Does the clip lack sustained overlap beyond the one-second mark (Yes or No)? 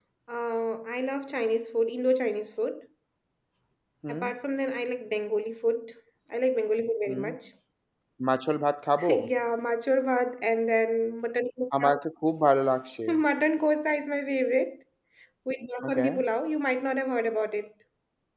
Yes